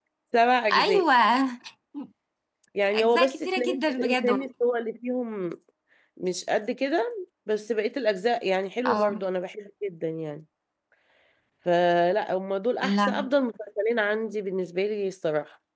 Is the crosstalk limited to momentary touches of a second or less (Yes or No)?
No